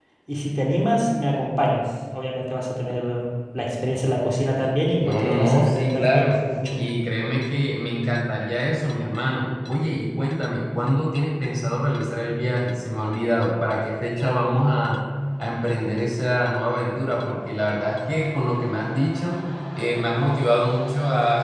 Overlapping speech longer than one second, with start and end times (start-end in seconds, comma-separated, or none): 5.0-6.3